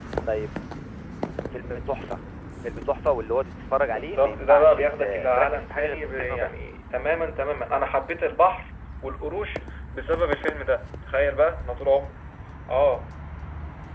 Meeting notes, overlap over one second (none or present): present